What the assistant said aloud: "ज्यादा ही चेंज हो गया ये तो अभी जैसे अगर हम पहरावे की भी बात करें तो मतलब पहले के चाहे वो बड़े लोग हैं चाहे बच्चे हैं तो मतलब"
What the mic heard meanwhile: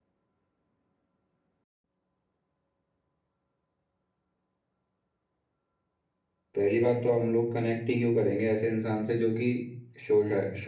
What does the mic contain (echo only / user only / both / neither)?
user only